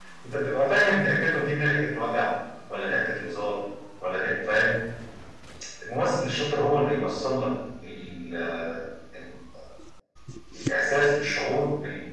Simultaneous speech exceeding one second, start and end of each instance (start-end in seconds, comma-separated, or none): none